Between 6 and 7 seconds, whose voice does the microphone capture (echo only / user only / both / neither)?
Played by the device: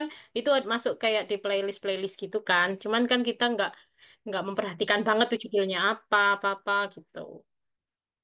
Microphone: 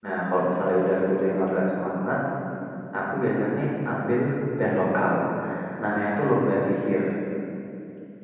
user only